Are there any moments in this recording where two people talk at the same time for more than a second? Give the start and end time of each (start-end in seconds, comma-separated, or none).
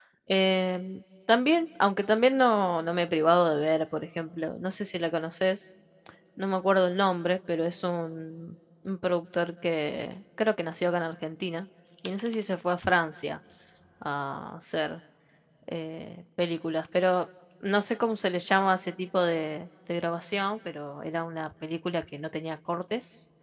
none